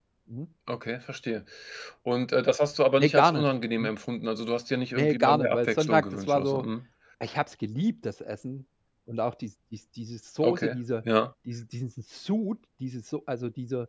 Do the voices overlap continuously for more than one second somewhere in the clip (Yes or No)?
Yes